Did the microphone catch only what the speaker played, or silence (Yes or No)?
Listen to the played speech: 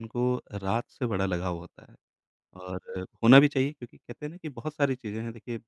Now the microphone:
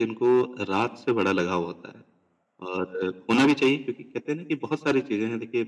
Yes